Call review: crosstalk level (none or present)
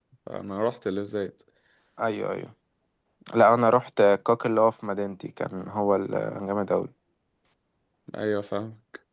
none